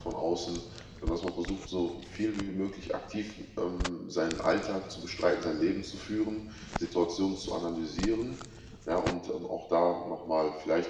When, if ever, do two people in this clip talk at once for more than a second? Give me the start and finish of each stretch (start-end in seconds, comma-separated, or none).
none